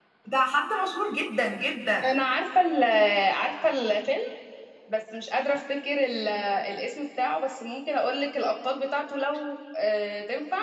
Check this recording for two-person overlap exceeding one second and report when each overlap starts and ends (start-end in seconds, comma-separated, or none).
none